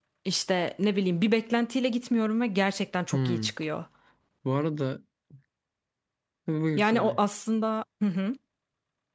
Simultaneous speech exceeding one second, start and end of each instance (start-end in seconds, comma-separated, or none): none